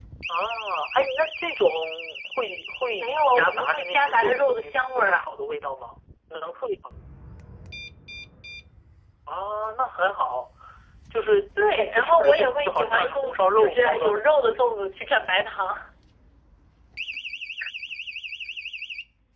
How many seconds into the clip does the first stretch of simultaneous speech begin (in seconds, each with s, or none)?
3.0 s